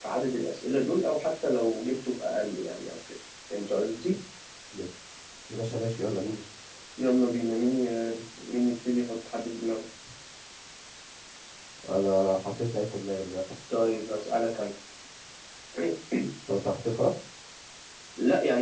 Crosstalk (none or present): none